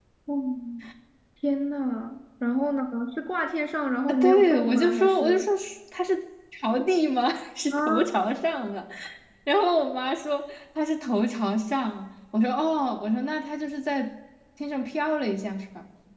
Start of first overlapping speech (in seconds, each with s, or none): 4.1 s